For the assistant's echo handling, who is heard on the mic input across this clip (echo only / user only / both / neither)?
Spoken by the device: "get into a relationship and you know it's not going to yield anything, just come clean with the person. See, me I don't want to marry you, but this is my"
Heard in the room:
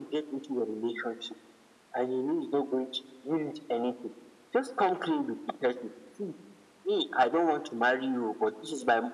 echo only